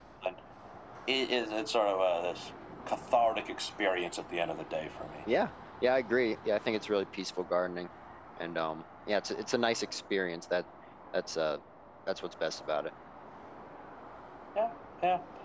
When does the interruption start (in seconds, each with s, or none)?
none